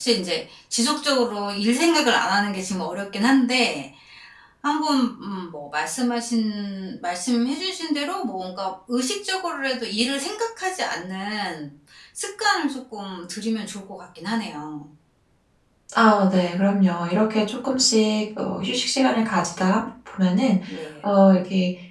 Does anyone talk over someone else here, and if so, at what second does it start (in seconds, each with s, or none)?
none